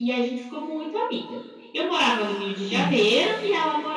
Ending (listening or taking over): listening